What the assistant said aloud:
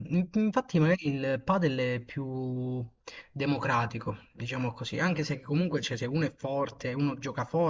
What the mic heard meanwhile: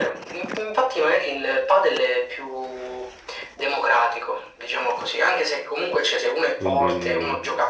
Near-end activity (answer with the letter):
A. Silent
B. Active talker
B